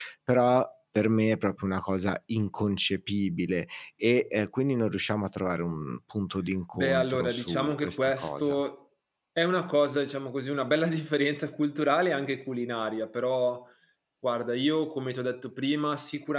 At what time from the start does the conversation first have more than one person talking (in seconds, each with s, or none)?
6.7 s